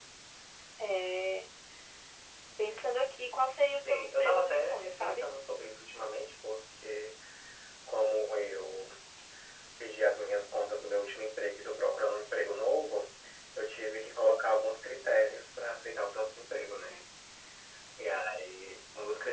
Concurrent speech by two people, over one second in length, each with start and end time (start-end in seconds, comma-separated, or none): 3.8-5.2